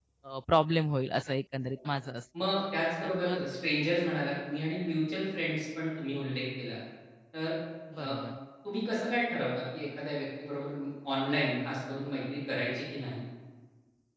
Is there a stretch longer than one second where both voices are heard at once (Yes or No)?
No